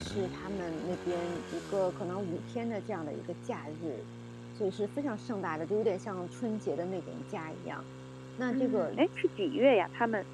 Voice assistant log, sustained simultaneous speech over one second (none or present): none